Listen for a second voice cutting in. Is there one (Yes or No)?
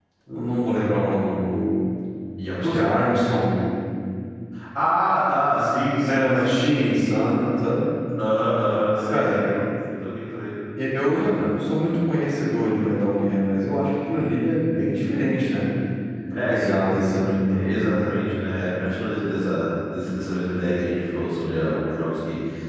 Yes